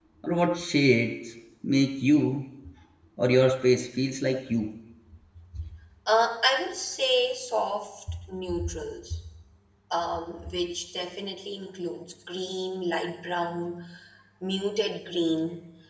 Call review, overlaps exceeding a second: none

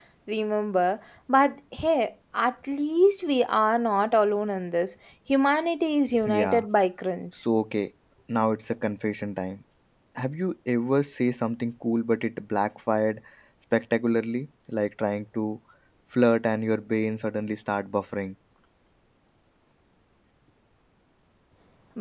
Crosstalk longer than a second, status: none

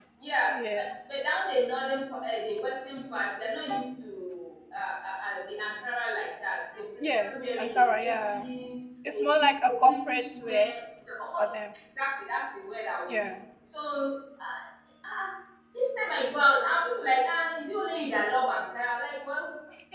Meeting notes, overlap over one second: present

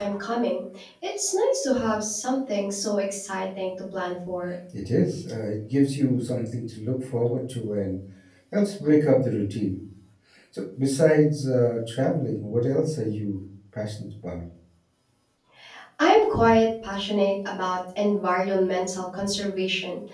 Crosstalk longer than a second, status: none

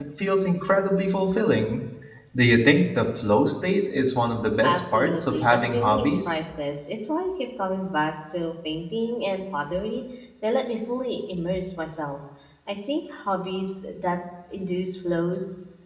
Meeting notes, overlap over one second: present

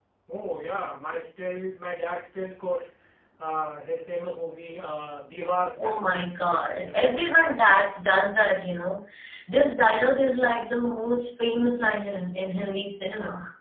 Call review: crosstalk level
present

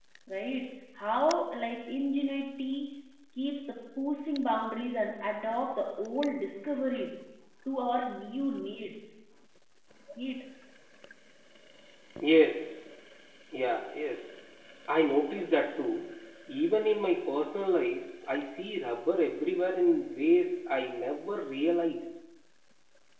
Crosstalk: none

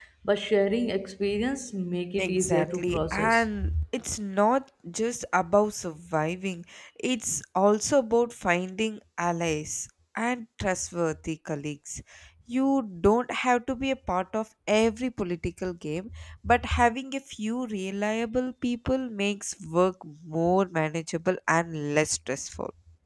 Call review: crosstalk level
present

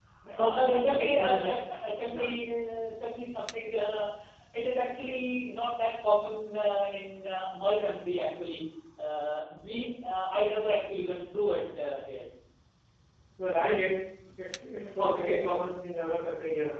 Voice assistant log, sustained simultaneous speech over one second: present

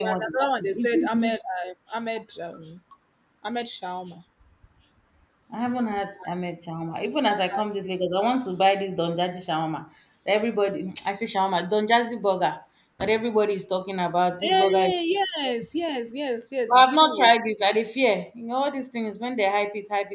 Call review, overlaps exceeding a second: present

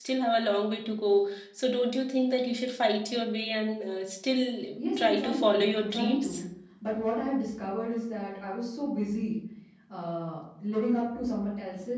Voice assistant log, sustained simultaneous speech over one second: present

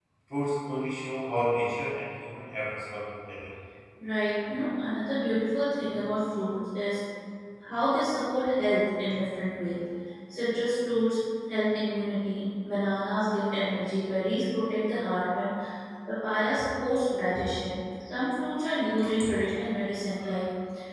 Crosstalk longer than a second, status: none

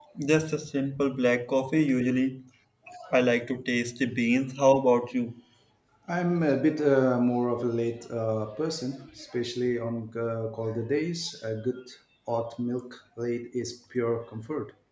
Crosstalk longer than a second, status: none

